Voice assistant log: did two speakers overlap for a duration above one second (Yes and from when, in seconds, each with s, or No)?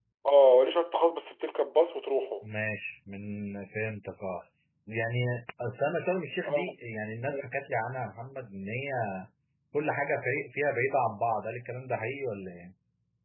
No